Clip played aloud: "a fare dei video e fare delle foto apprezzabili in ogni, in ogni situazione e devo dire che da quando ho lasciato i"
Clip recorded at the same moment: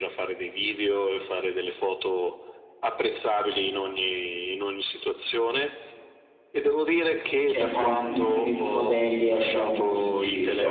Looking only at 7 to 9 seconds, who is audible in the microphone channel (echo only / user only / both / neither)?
both